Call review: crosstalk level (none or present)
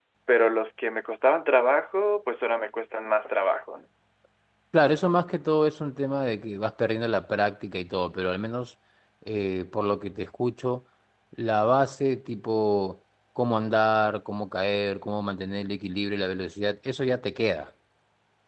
none